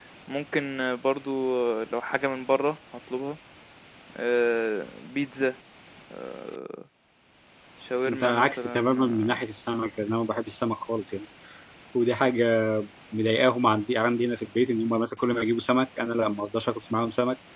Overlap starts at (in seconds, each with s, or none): 8.1 s